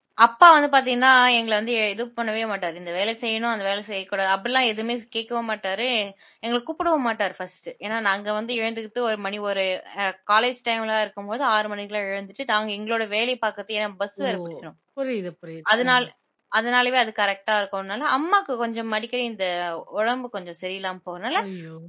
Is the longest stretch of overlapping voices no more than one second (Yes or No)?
Yes